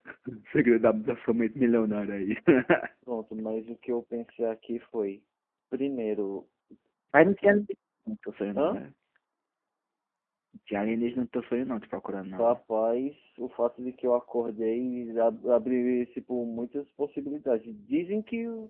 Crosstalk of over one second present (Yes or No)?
No